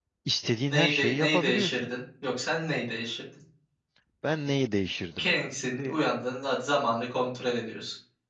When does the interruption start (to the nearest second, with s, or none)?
1 s